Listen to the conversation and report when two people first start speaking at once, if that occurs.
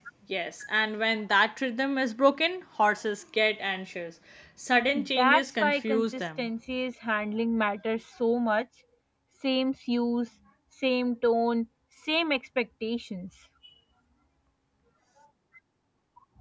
5.2 s

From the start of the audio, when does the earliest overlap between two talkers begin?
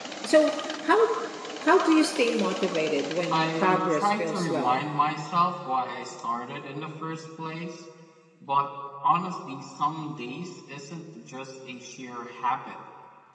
3.3 s

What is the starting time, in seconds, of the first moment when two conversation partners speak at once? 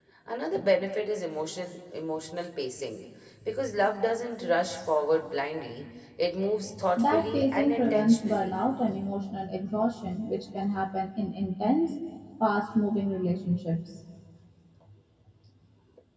7.0 s

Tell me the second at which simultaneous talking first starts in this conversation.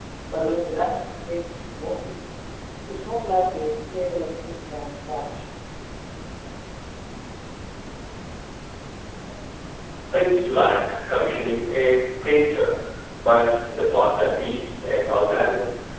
none

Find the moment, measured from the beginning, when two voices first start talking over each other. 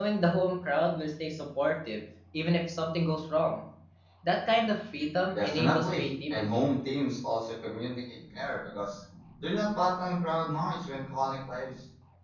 5.3 s

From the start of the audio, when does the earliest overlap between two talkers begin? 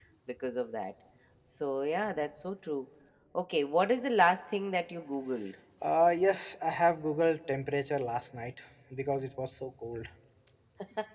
none

